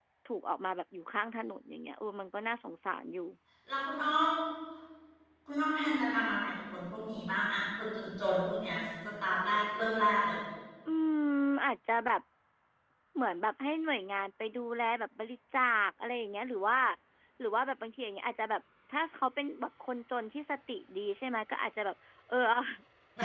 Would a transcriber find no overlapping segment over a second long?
Yes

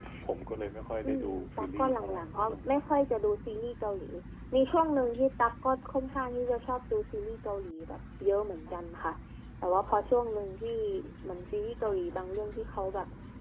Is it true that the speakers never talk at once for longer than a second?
No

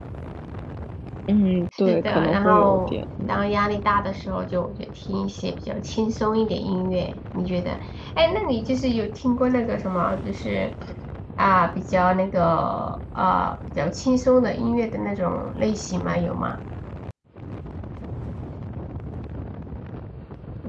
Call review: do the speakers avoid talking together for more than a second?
No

